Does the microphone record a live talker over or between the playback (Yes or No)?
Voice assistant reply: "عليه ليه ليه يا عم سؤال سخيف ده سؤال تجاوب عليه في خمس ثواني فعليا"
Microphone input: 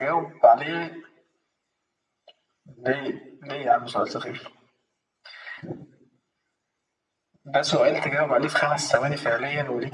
No